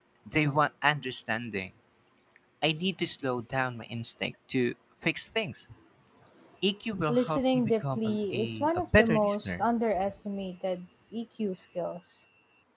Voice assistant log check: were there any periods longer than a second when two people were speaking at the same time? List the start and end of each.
7.1-9.7

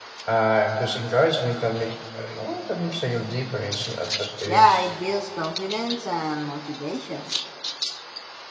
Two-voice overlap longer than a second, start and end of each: none

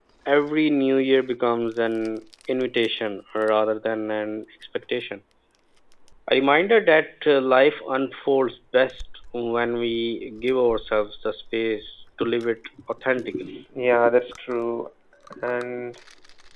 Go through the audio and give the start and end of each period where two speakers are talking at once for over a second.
none

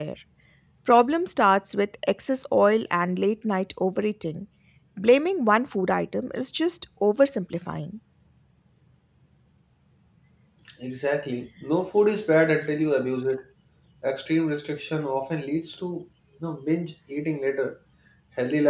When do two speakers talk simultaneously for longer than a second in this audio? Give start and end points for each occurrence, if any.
none

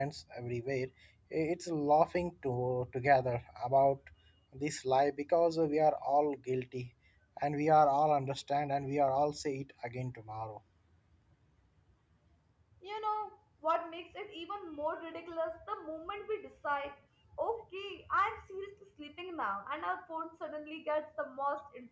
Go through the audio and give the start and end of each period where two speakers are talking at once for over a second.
none

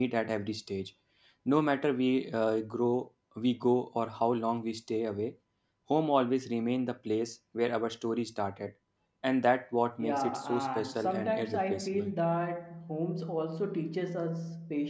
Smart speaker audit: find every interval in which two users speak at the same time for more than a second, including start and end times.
10.0-12.1

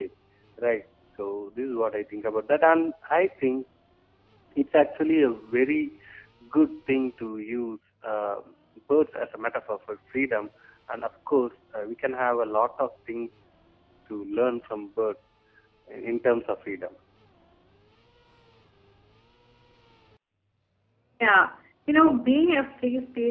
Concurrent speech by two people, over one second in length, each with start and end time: none

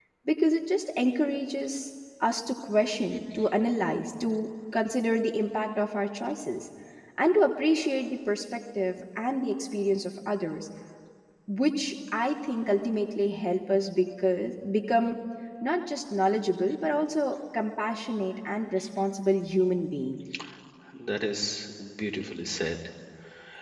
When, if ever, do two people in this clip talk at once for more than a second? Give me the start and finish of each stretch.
none

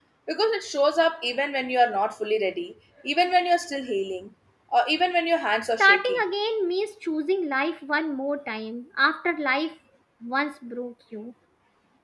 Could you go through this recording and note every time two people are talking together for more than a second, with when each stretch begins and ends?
none

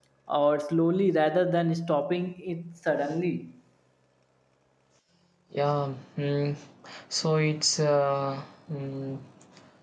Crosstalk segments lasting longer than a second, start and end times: none

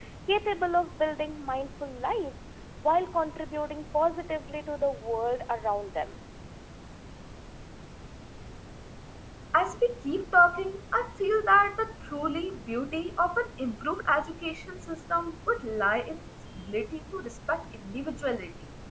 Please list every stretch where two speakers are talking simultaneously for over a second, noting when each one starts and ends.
none

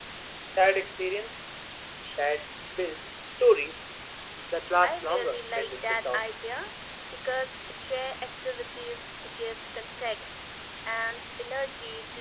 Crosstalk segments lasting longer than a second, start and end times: 4.8-6.2

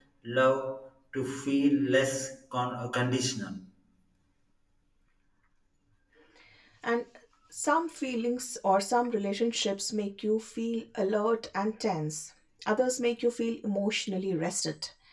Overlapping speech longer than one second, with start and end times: none

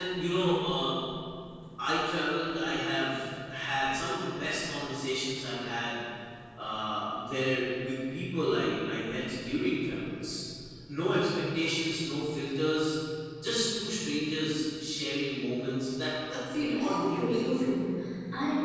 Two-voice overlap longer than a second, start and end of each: 16.6-17.8

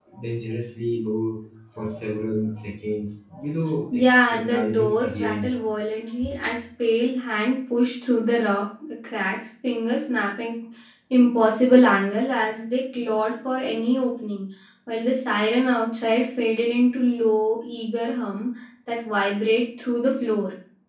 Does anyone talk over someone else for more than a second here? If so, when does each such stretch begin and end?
3.9-5.5

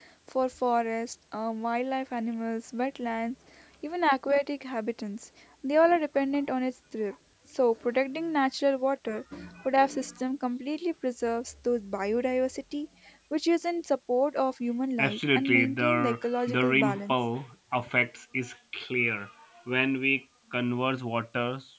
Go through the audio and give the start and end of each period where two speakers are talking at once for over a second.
15.0-17.1

